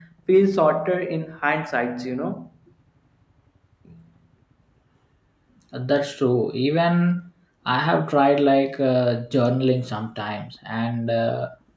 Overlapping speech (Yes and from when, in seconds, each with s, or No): No